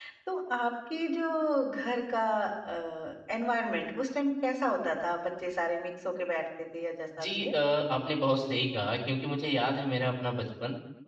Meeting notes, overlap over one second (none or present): none